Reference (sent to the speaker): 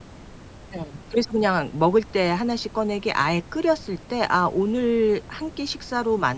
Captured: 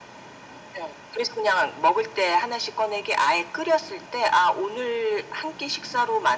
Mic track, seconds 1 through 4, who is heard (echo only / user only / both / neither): echo only